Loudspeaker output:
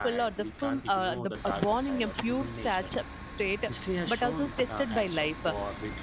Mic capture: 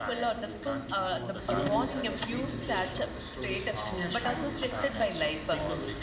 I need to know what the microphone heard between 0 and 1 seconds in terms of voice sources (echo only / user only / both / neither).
echo only